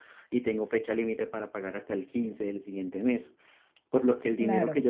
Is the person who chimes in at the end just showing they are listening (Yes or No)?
Yes